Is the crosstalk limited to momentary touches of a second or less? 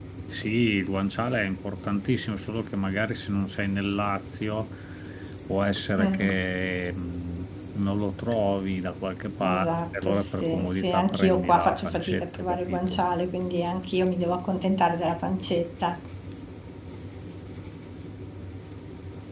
No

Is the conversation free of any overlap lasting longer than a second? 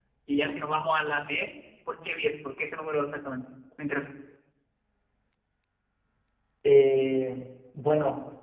Yes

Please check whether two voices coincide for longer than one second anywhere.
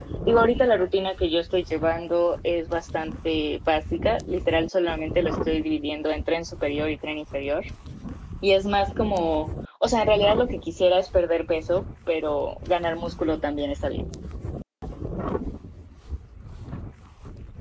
No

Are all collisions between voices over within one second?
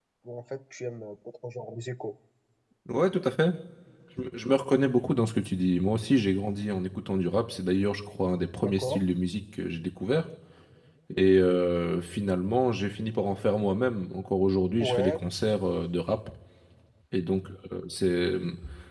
Yes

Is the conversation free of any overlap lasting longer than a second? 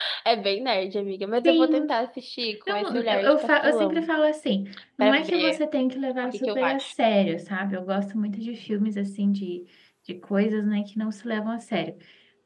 No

